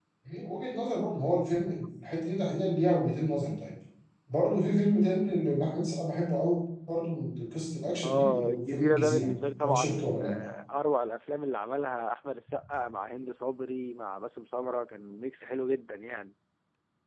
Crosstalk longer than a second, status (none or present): present